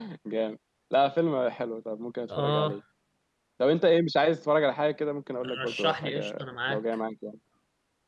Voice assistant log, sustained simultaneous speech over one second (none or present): present